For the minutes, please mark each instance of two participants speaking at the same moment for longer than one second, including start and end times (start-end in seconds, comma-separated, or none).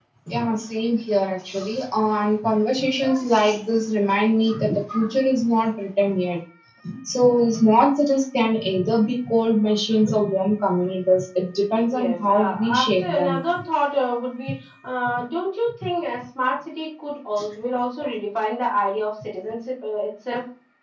11.8-13.4